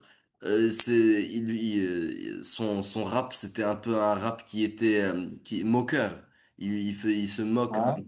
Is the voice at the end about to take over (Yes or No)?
No